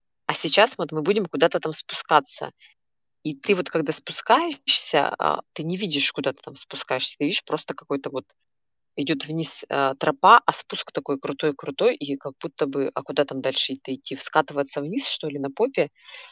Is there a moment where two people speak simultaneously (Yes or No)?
No